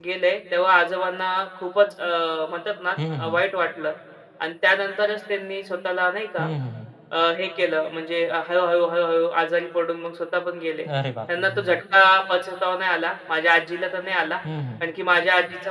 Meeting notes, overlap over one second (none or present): none